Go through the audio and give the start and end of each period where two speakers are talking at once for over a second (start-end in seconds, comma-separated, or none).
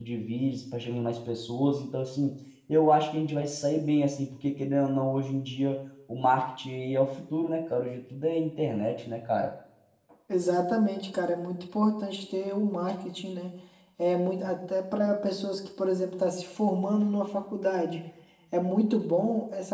none